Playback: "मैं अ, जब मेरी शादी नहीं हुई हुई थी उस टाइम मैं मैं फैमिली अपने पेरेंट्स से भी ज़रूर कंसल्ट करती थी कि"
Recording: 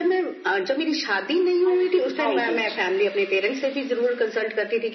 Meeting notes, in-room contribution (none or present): present